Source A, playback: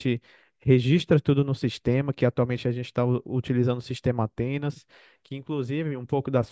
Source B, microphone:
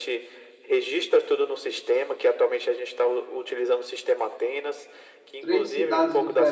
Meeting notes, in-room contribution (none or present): present